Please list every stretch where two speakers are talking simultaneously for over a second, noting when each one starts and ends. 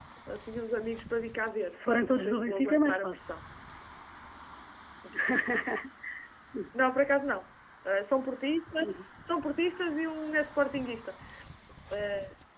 1.7-3.2

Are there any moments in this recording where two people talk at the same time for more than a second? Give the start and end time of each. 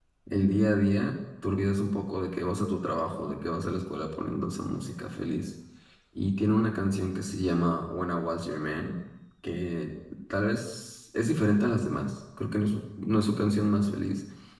none

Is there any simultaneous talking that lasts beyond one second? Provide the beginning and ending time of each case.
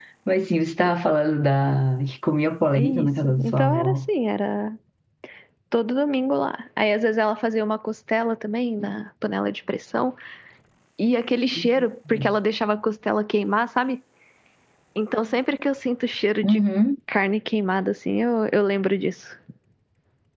2.8-4.1

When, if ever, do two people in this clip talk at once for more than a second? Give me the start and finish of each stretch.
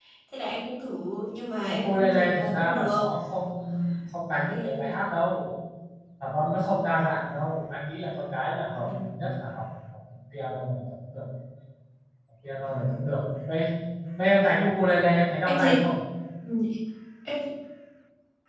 1.7-3.0

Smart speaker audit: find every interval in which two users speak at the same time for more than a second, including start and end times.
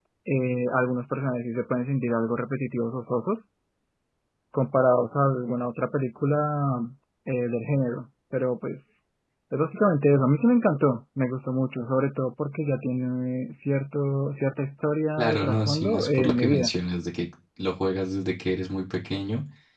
15.2-16.7

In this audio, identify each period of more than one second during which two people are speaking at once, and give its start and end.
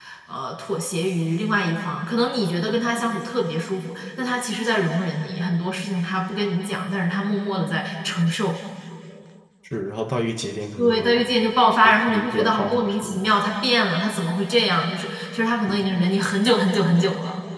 11.8-13.2

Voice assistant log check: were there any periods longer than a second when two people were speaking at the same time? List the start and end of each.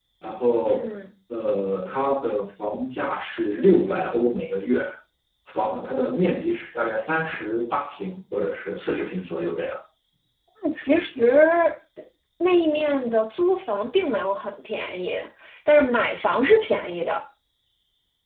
none

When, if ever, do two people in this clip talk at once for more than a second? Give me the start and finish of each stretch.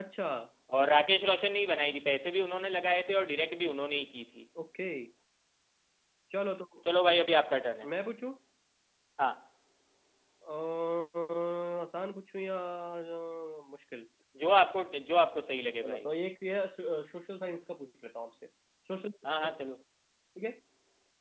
none

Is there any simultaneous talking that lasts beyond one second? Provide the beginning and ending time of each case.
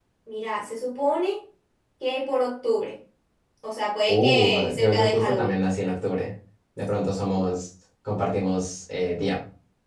4.1-5.6

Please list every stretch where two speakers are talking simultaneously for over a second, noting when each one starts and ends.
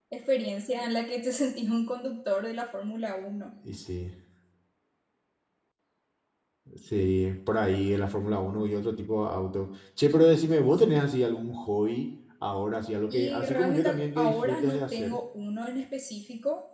13.1-15.2

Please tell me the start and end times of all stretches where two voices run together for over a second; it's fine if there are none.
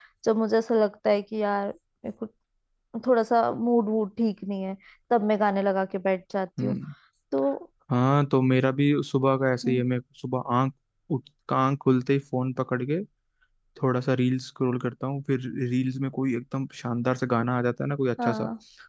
none

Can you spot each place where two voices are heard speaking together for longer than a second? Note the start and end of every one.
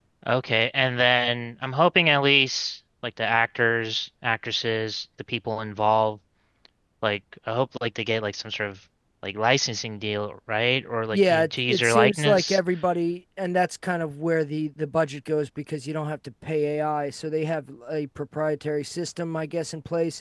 11.1-12.6

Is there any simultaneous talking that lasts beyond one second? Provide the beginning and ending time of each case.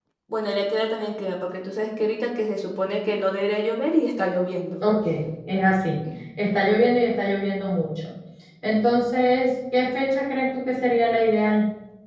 none

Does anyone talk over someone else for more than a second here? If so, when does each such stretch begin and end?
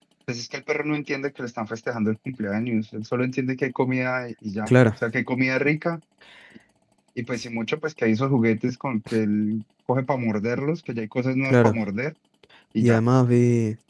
none

